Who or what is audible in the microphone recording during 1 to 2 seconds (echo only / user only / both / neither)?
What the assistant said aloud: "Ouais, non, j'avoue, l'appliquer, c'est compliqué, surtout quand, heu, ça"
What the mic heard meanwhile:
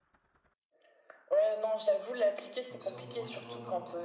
echo only